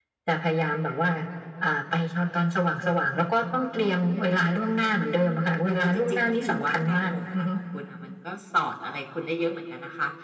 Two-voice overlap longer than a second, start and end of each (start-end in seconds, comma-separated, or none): 5.6-7.5